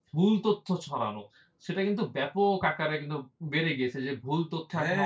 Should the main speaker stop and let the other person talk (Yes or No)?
Yes